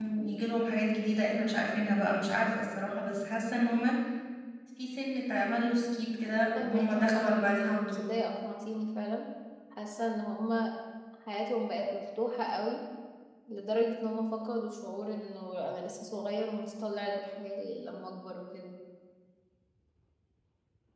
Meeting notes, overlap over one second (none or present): present